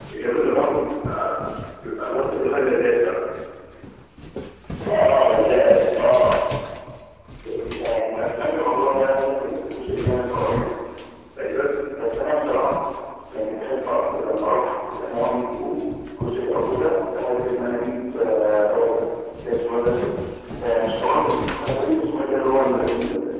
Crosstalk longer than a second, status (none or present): none